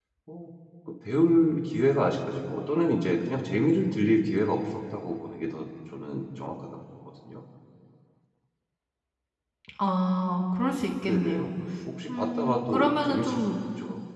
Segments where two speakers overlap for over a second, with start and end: 12.1-13.6

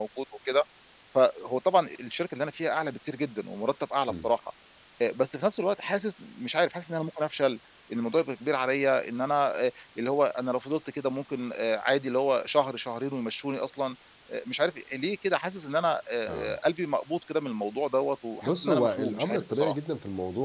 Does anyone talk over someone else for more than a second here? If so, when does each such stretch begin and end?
18.4-19.8

